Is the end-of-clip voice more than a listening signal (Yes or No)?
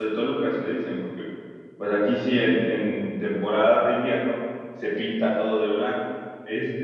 No